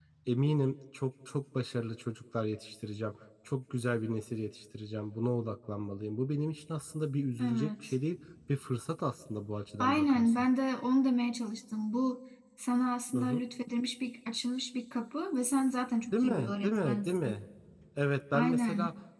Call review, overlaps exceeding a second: present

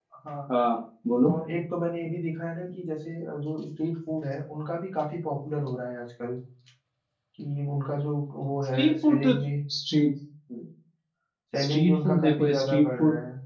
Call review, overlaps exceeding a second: present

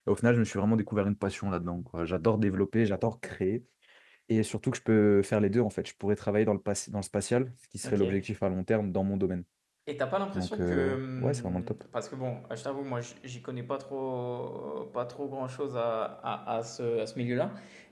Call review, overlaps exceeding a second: present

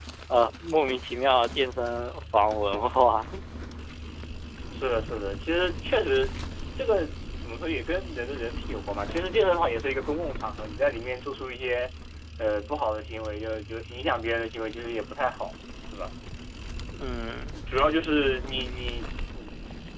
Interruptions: none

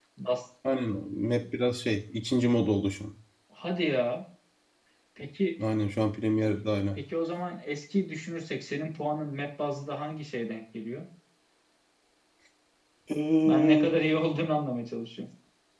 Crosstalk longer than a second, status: none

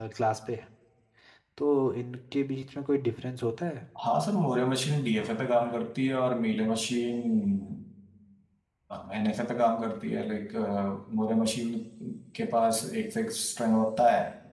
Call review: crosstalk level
none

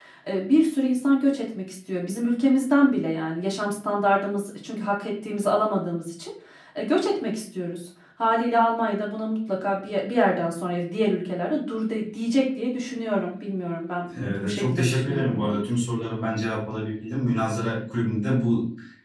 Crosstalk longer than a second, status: present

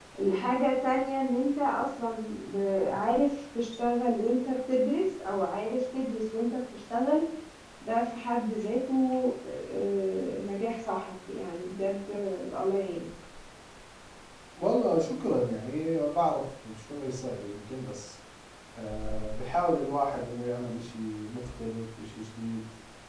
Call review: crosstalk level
none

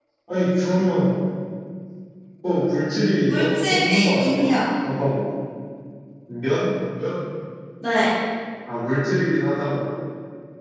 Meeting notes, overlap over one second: present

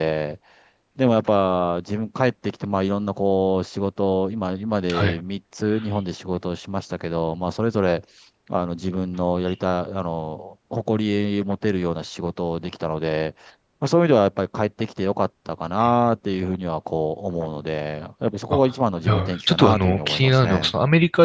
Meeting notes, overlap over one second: present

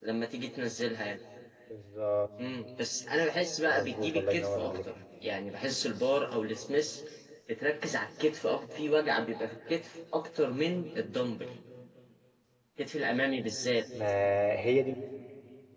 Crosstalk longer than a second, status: present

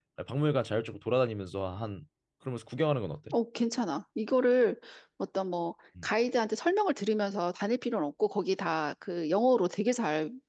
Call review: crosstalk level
none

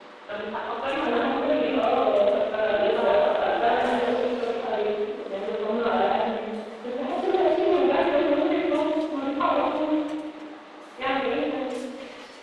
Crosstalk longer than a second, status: present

